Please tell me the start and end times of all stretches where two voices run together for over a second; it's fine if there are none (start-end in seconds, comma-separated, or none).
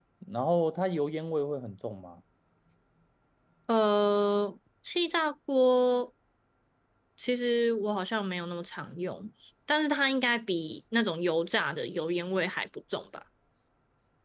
none